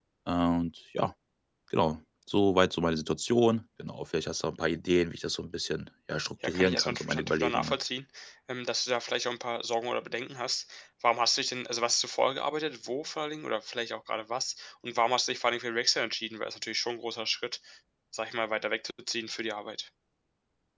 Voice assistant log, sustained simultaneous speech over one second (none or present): present